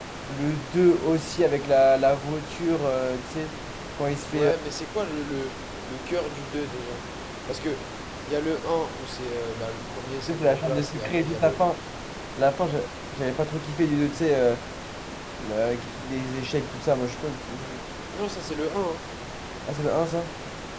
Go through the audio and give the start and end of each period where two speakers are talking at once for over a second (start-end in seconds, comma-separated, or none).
10.3-11.7